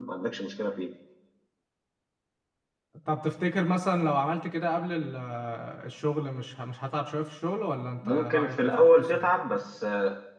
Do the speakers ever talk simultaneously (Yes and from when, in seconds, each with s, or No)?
Yes, from 8.0 s